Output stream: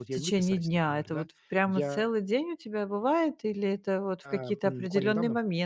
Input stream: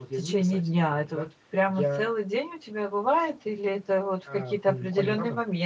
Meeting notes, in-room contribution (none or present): none